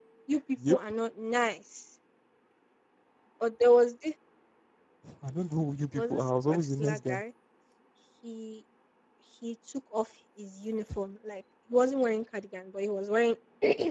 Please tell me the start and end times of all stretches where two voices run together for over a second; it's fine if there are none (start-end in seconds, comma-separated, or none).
6.0-7.2